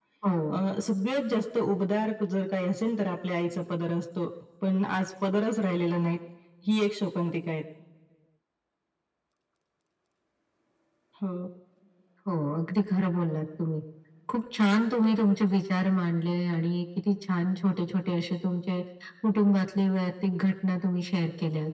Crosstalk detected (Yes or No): No